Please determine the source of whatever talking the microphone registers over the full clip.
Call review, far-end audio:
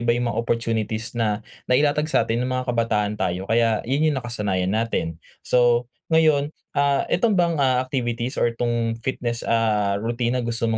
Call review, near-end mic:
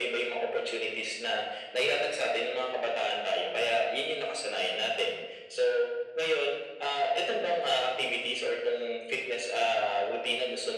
echo only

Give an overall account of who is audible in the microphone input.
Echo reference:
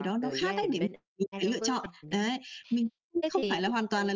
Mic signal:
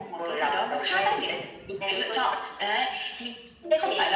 echo only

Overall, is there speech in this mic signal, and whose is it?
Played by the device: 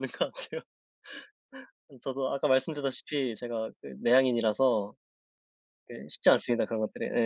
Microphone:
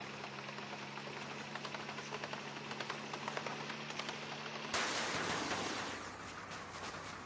neither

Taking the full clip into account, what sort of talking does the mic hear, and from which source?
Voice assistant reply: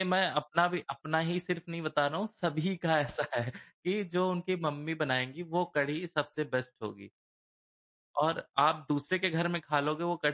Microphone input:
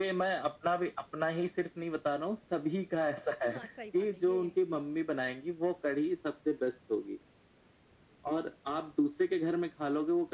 both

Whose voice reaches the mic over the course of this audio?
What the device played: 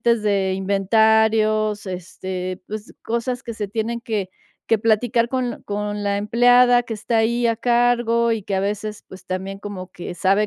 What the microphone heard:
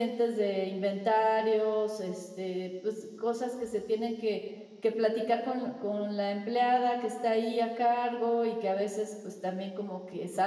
echo only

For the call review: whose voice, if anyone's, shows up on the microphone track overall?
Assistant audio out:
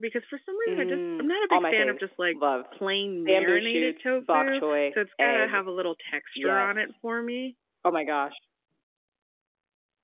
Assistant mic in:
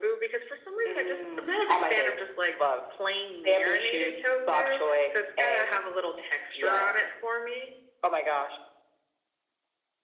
echo only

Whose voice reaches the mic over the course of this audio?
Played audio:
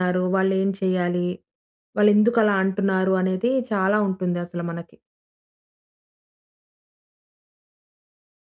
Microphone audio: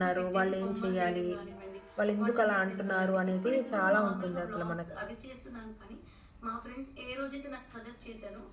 both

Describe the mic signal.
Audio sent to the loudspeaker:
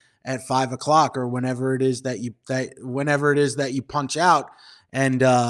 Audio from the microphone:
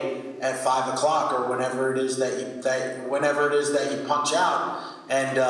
echo only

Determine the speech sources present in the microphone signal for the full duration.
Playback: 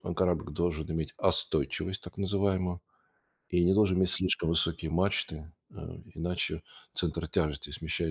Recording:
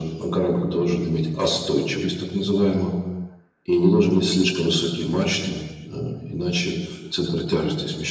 echo only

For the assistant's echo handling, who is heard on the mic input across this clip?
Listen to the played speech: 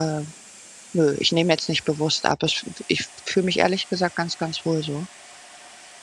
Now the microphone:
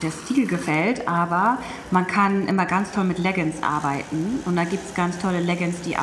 user only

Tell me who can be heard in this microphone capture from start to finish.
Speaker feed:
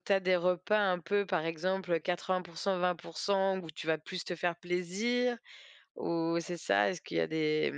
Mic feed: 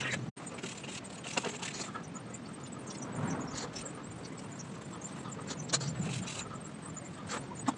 neither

